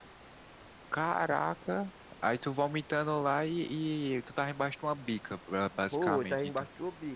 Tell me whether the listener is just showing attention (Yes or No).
No